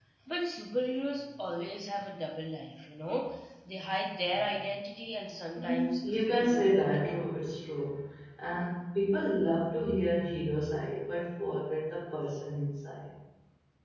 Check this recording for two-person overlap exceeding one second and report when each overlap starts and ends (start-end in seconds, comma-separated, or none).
5.5-7.3